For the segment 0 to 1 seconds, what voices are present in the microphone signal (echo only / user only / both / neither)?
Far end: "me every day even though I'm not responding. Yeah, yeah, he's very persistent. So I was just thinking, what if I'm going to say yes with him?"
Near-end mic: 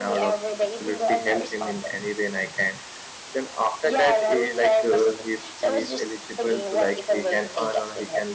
both